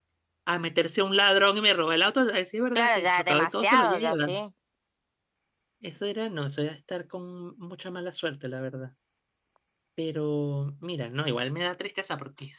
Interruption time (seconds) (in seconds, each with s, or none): 2.8 s